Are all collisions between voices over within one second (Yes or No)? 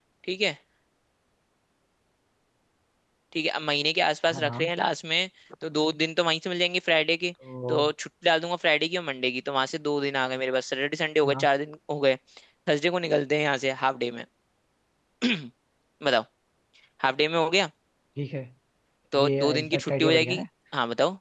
No